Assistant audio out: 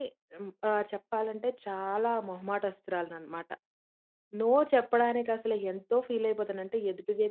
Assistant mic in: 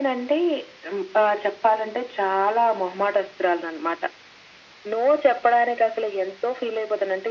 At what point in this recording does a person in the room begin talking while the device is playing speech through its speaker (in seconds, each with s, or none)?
none